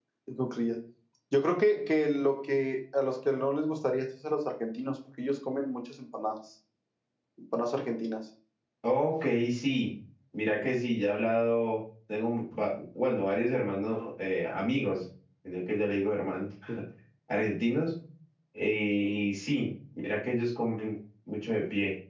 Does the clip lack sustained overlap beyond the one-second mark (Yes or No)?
Yes